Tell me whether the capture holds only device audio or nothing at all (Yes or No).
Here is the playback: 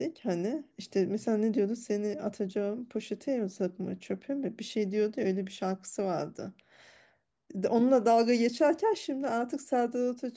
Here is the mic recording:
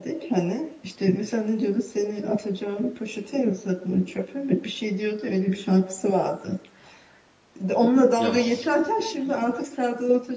No